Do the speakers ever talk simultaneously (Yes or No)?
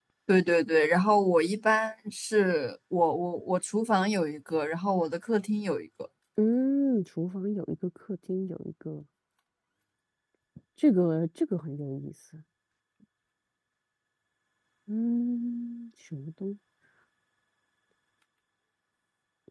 No